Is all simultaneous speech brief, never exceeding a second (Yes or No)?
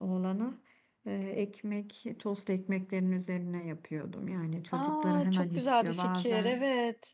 No